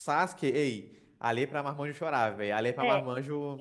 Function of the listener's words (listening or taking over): taking over